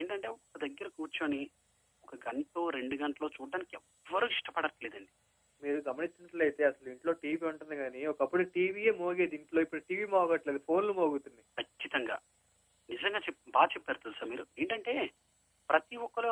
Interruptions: none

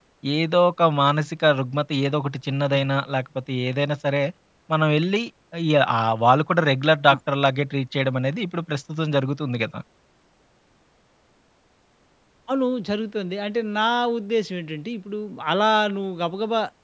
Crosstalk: none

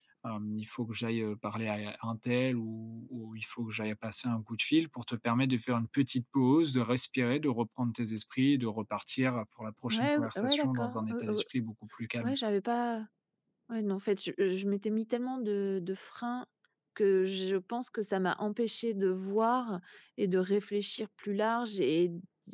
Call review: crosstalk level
present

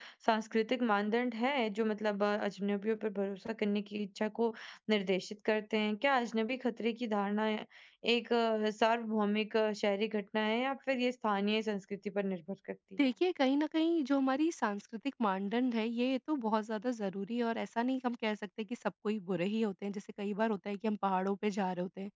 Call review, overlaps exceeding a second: none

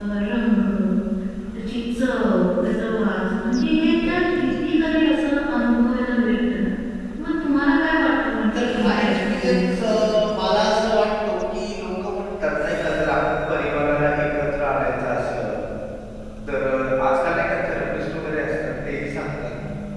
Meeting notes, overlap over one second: present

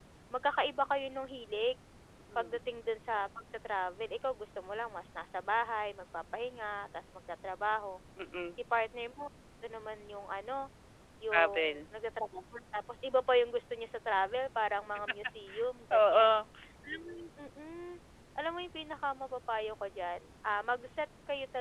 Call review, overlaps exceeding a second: none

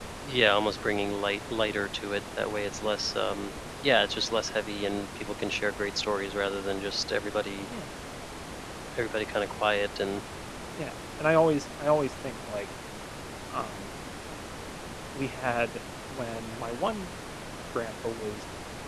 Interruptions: none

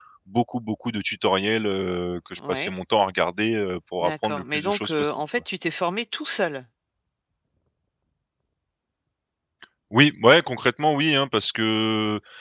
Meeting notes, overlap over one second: present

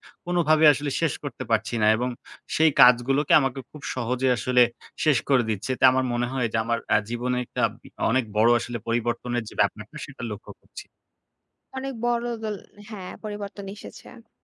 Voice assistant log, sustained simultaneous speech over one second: none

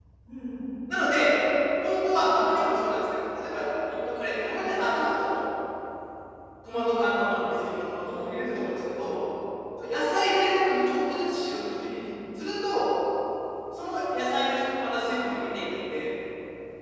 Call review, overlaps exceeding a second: none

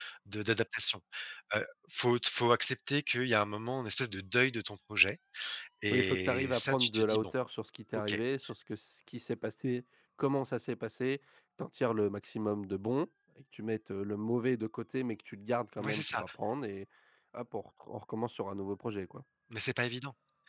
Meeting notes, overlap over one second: present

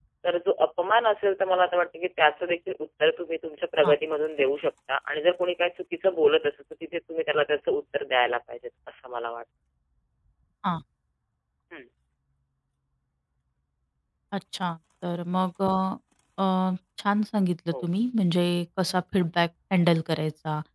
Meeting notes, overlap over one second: none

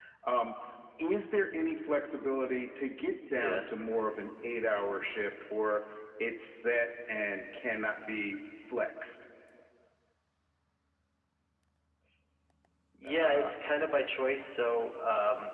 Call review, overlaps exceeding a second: none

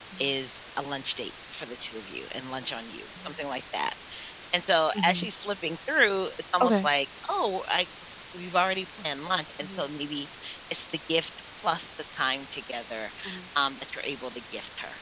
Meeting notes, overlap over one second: none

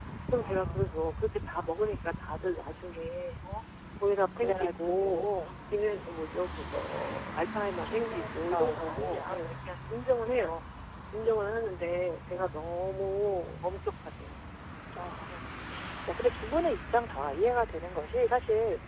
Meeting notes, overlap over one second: present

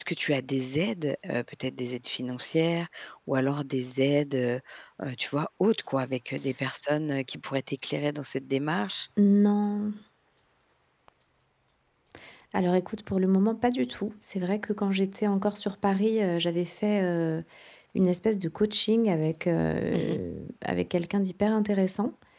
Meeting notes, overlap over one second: none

